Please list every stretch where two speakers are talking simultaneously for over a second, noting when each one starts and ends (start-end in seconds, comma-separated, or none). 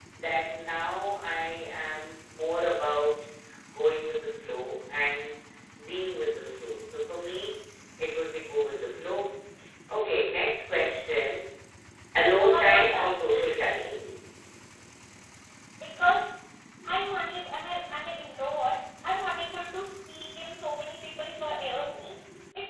12.6-13.9